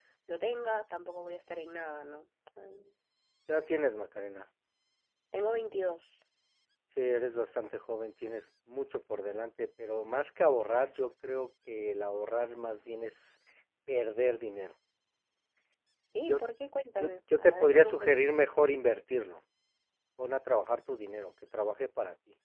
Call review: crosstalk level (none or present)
present